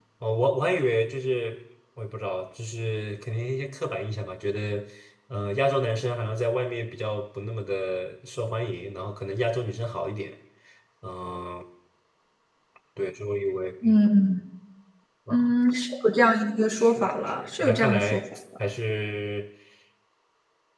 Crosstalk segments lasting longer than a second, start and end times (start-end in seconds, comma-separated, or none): 16.7-18.2